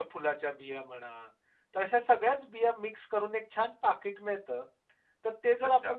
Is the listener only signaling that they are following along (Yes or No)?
Yes